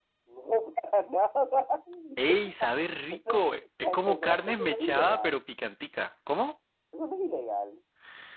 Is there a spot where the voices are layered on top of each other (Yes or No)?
Yes